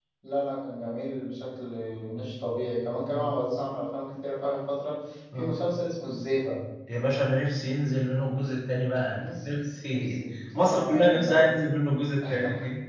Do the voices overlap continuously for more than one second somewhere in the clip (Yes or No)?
Yes